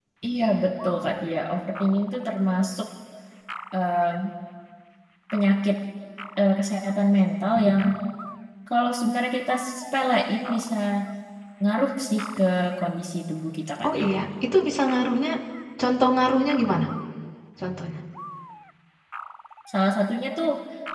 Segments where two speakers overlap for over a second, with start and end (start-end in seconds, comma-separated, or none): none